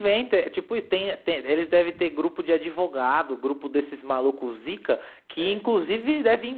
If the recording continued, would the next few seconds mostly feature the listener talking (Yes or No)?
No